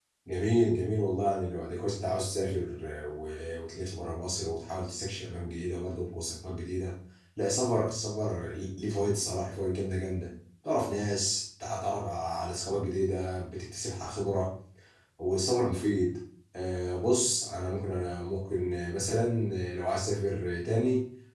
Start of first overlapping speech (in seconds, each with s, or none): none